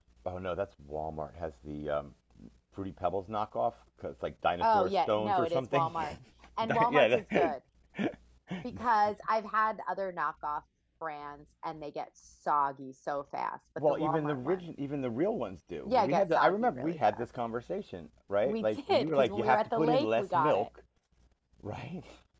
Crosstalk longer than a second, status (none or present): present